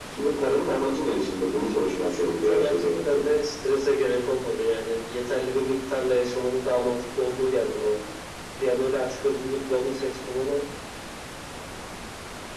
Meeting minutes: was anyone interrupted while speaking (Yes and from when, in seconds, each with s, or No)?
Yes, from 1.7 s